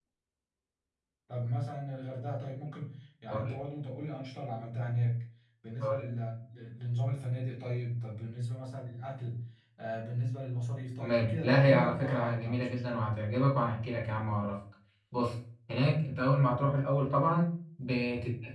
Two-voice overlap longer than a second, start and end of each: 11.0-13.0

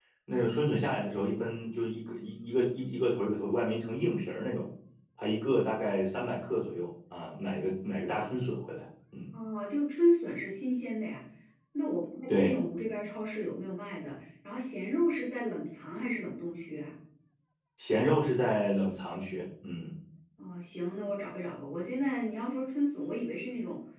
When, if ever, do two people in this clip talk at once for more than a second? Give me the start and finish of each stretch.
none

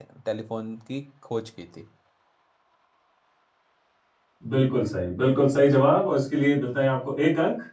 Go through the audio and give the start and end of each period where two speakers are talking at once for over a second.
none

